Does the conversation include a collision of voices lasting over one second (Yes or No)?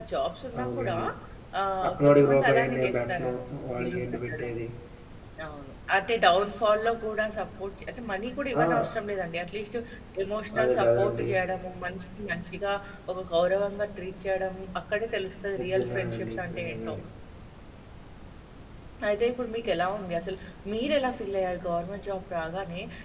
Yes